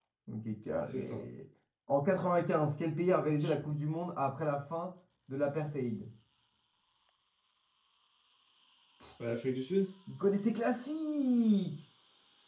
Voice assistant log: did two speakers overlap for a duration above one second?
No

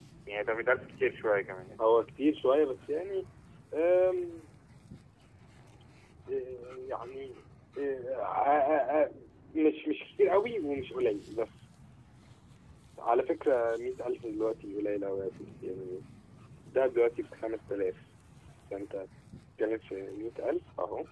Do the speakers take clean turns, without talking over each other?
Yes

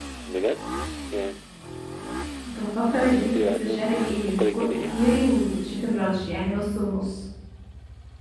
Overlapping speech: Yes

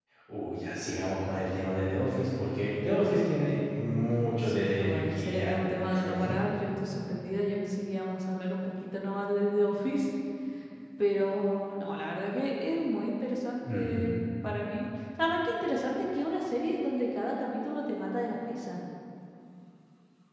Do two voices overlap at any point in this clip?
Yes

